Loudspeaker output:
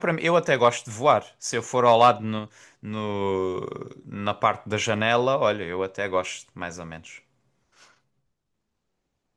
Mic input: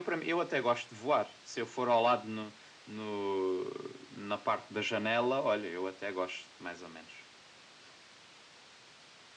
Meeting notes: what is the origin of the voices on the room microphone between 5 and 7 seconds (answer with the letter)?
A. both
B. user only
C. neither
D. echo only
D